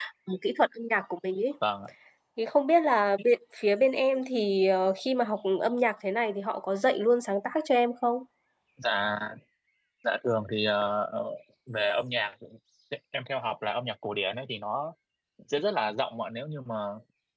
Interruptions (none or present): none